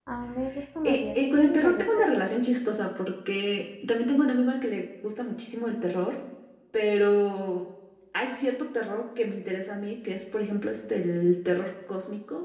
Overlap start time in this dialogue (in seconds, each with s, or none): 0.8 s